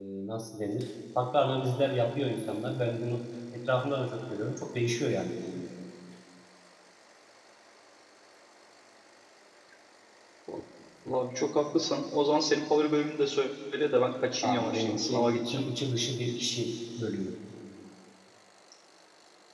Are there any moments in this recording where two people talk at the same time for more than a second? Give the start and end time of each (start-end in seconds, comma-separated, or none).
14.4-15.6